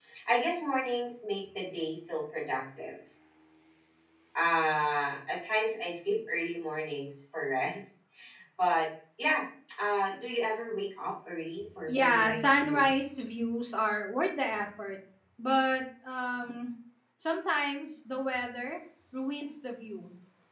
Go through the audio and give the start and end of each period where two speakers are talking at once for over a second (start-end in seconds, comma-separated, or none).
11.9-13.2